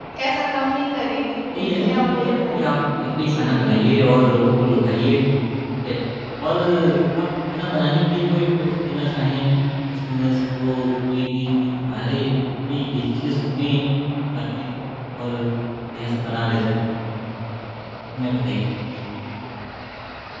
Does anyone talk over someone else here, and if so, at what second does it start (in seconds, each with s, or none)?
1.5 s